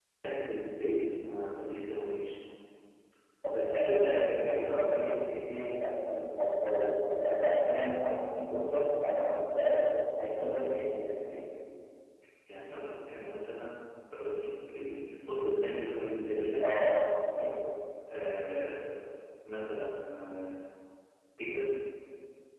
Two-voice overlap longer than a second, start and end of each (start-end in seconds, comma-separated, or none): 3.5-4.8